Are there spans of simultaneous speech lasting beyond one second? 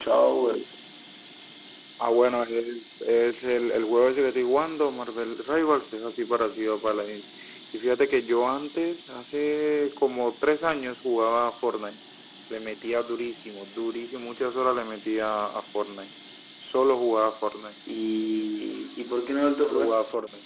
No

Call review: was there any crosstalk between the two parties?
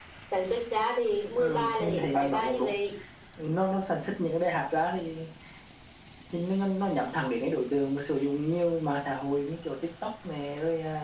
Yes, from 1.4 s

